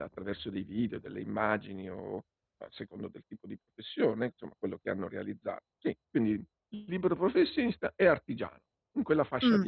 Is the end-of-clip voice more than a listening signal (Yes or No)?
Yes